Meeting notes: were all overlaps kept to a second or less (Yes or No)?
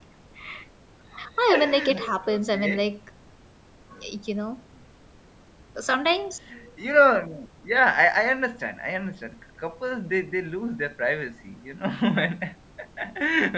No